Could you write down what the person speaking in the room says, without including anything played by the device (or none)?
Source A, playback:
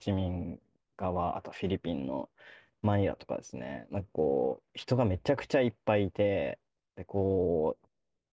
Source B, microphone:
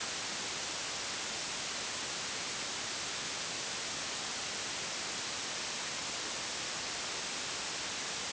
none